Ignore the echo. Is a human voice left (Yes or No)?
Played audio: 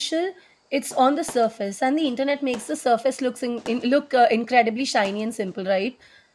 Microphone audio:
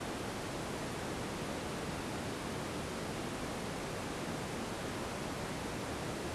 No